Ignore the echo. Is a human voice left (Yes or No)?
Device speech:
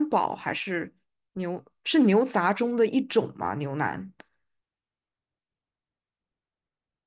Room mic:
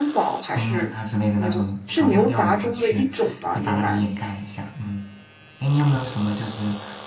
Yes